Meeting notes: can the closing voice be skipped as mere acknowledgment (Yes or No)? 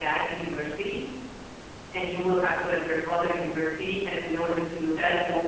Yes